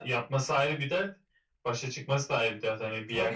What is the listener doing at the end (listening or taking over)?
taking over